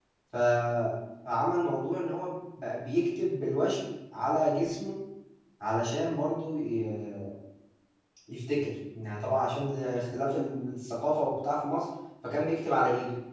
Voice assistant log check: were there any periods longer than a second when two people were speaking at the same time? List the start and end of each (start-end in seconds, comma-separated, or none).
none